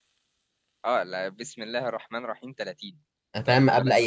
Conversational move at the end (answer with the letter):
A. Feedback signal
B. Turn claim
B